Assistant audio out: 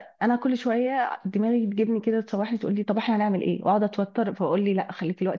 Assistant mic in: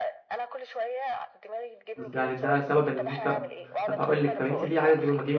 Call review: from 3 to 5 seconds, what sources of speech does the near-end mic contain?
both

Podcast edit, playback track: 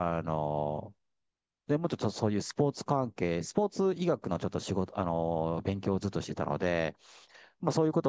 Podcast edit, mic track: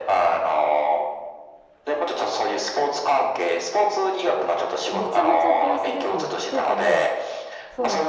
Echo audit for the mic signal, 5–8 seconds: both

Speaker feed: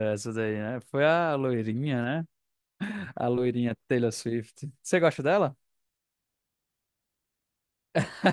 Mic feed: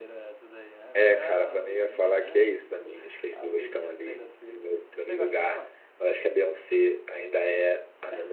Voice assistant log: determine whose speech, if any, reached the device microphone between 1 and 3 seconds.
both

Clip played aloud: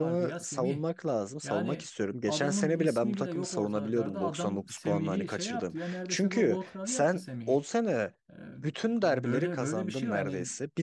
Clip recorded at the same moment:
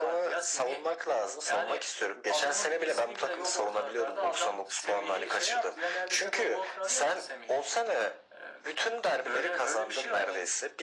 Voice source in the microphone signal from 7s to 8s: echo only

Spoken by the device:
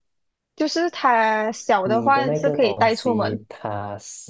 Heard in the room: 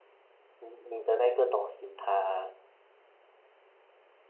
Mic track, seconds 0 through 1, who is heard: user only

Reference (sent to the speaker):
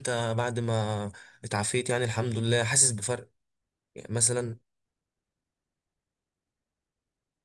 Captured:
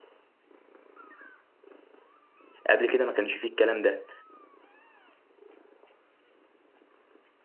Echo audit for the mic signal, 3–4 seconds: user only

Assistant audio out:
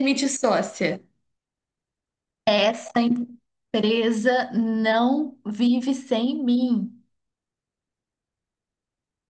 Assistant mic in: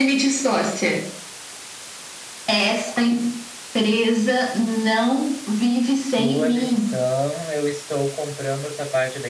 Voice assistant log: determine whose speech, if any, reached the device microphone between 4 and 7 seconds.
both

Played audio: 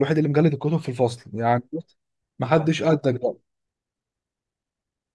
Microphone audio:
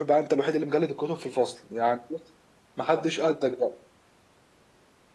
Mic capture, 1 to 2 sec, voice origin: echo only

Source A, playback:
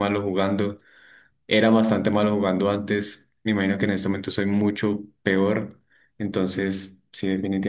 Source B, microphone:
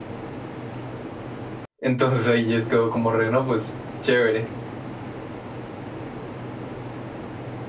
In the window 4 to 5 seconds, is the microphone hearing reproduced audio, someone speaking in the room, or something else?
user only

